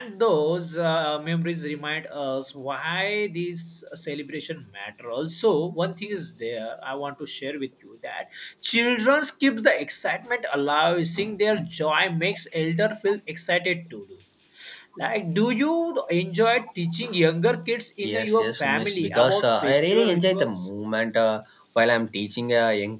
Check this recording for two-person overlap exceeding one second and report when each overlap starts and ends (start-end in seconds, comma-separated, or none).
18.0-20.7